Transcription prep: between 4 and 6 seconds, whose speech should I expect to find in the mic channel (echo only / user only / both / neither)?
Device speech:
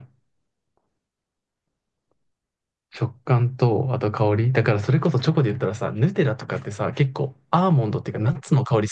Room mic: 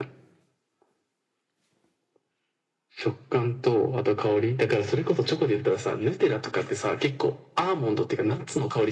echo only